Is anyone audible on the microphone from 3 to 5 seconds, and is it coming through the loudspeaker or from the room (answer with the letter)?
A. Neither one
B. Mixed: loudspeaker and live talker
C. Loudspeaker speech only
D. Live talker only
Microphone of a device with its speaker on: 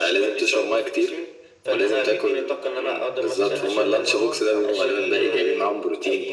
B